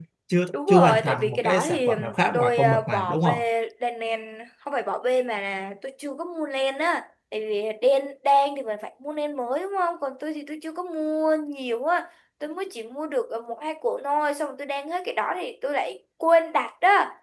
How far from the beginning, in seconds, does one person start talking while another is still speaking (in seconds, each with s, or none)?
0.7 s